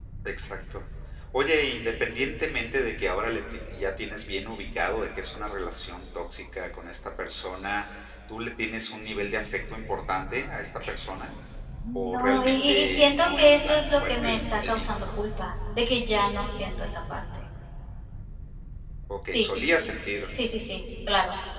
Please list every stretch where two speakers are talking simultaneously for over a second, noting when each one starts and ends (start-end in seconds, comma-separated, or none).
11.9-15.1